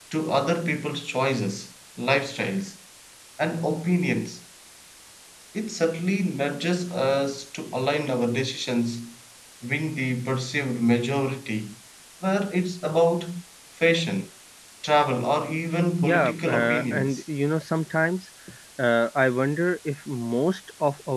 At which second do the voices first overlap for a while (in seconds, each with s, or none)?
16.0 s